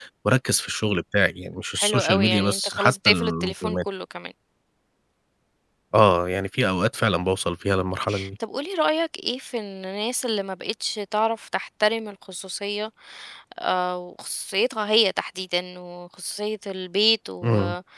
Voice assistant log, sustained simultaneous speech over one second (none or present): present